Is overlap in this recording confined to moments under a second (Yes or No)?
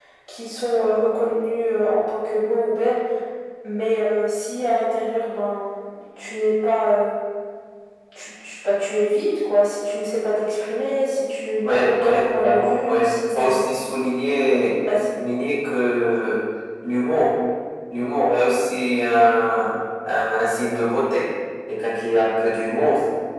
No